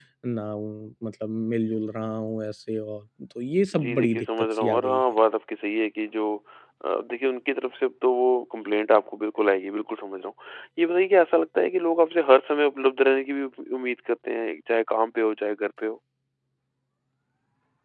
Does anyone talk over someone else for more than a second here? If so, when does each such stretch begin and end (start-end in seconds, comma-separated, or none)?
3.7-5.0